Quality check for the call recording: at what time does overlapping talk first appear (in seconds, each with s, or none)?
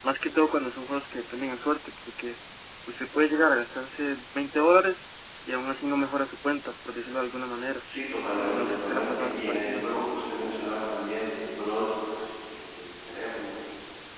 8.6 s